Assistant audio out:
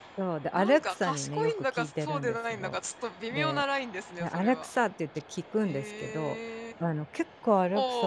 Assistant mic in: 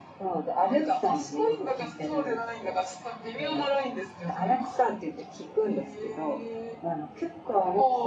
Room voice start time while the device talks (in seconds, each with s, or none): none